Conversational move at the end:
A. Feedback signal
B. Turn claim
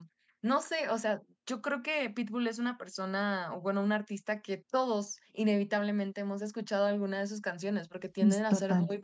A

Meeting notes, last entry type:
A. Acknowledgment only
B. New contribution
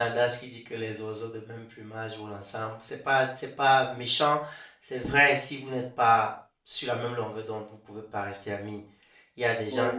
A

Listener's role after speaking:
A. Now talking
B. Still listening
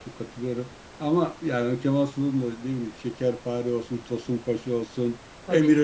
B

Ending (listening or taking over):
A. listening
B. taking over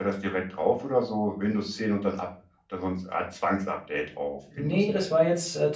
B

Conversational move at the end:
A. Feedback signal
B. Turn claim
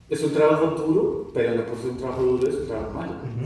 B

